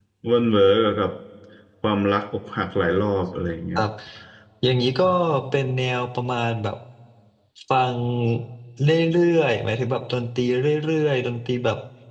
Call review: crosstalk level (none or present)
none